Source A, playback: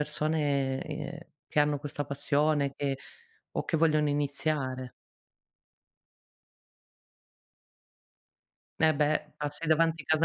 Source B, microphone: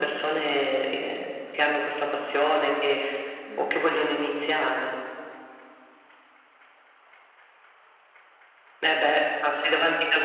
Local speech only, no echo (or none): Mh.